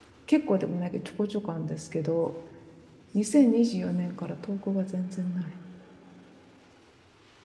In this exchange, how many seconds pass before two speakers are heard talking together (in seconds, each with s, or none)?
none